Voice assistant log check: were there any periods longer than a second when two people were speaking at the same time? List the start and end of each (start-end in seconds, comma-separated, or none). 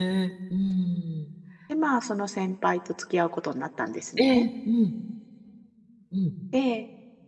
none